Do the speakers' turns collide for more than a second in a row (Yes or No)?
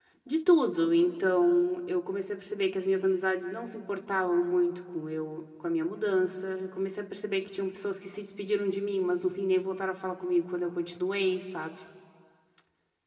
No